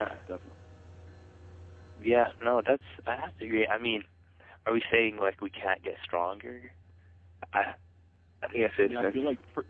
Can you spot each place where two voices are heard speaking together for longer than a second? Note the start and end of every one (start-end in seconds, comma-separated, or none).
none